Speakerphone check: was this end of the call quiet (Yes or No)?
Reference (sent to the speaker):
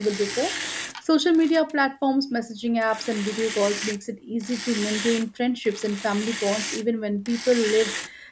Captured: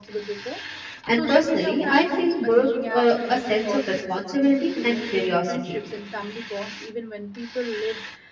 No